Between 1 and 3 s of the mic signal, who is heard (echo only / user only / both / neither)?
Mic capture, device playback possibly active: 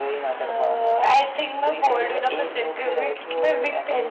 echo only